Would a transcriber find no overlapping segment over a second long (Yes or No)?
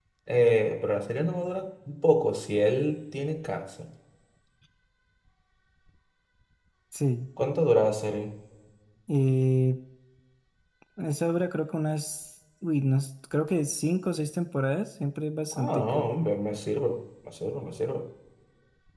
Yes